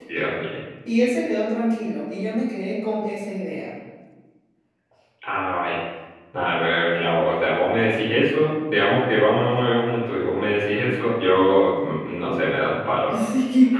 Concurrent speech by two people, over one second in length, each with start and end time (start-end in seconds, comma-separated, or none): none